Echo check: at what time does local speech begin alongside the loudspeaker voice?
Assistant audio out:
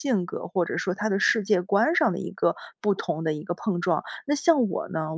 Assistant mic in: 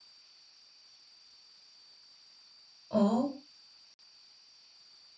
3 s

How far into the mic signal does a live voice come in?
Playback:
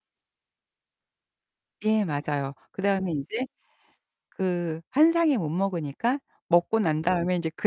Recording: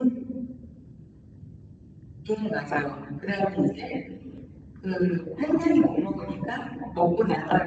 none

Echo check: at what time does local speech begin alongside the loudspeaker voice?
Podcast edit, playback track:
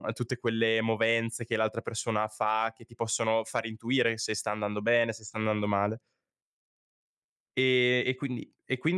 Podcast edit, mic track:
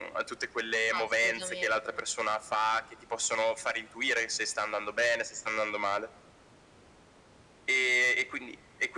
1 s

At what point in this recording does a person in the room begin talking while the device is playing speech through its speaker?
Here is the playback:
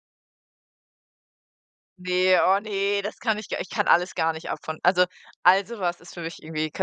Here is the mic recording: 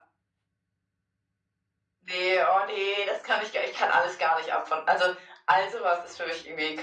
none

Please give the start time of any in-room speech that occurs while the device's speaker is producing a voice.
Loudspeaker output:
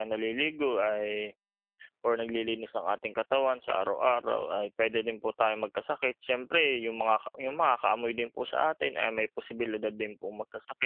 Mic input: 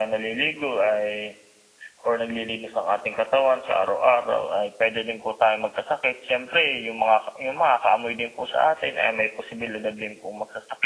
none

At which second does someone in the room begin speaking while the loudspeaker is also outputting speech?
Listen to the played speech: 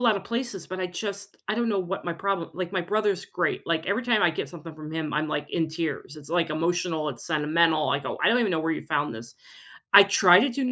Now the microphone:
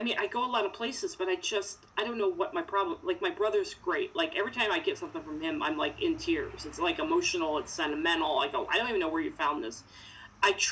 none

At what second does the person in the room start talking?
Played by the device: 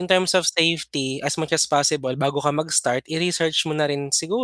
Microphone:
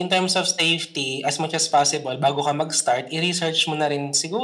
none

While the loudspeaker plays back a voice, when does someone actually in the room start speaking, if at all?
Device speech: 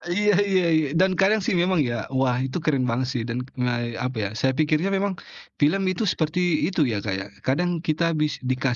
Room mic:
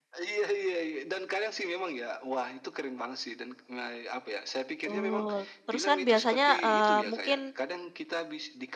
5 s

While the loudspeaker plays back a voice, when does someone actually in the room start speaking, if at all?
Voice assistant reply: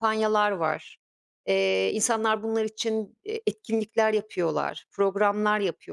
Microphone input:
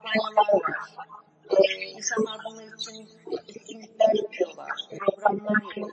none

